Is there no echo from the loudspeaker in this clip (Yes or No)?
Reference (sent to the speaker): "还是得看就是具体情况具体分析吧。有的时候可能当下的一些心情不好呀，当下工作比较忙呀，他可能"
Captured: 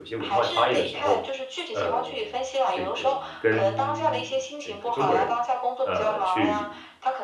No